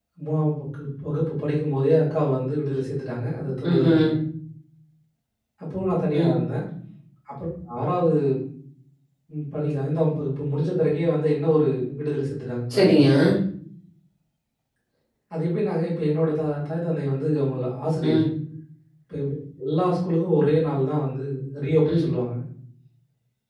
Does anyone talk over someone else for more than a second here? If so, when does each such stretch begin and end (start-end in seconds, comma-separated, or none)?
none